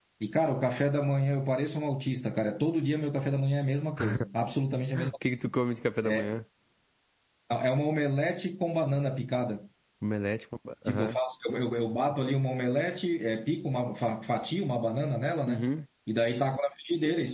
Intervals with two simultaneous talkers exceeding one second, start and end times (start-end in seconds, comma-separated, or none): none